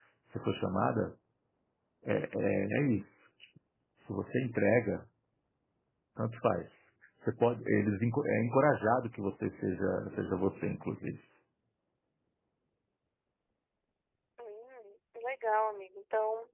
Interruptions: none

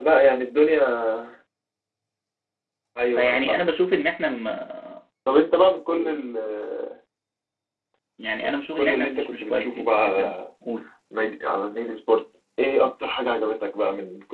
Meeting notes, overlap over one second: present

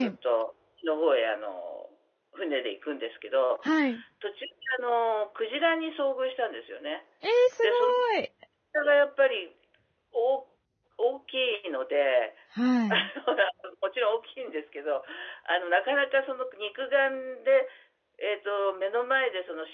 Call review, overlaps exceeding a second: none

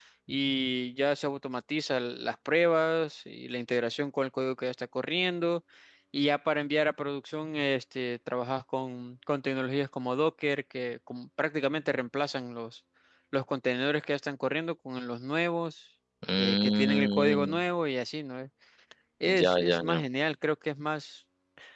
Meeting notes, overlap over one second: present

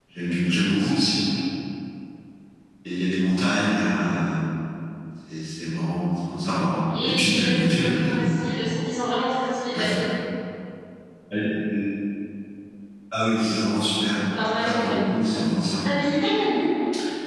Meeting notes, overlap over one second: present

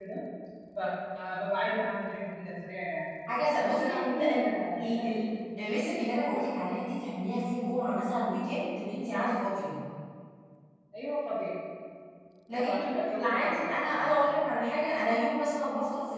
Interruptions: present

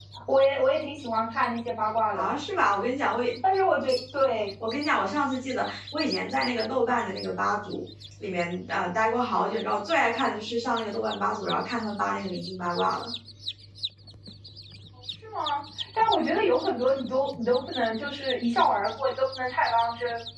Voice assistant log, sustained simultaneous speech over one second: none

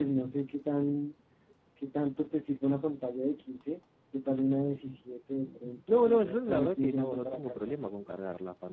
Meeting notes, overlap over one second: present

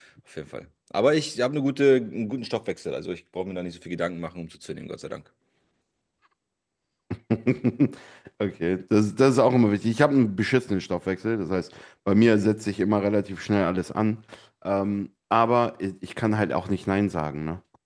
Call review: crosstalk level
none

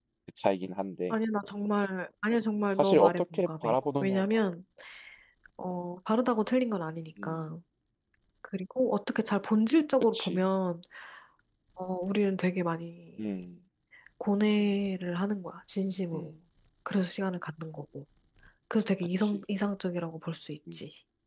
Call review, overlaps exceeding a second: present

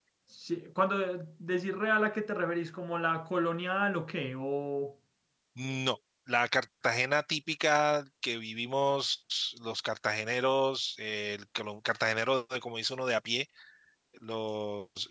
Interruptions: none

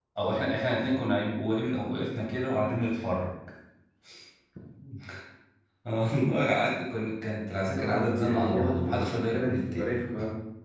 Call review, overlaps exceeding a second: present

